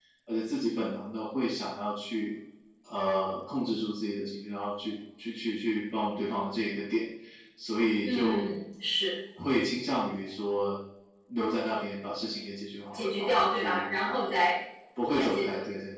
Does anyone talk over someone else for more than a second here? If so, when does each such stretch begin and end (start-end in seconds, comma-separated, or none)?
13.0-14.4